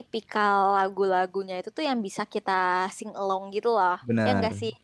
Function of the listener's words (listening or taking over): taking over